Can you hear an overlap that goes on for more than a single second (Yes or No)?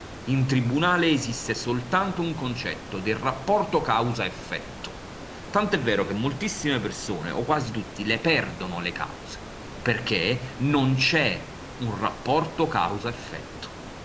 No